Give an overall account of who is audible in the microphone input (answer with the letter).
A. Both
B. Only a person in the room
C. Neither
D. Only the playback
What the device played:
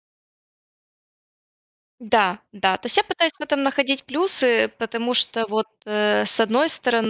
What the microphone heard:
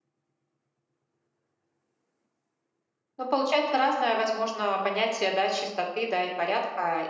B